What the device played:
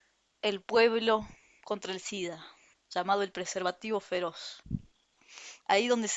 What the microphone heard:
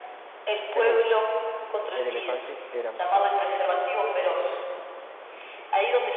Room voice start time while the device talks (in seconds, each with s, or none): 0.7 s